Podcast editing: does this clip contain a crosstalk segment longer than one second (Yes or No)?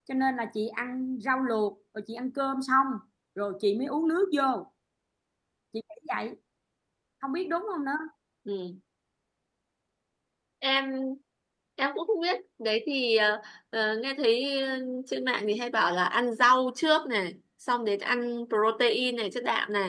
No